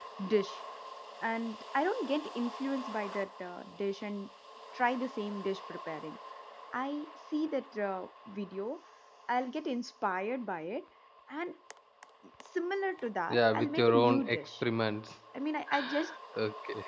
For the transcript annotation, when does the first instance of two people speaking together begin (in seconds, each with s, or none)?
13.3 s